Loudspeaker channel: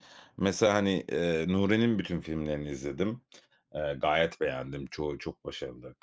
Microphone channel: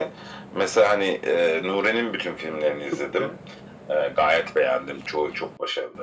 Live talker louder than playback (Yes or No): No